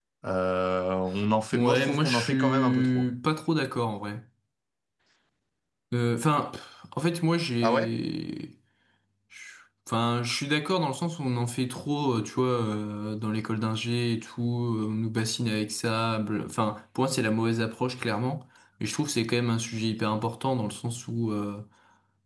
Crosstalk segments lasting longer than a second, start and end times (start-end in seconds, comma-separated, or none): 1.5-3.1